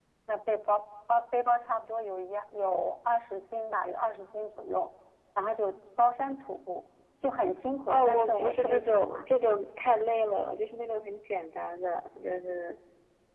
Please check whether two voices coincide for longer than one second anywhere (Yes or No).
Yes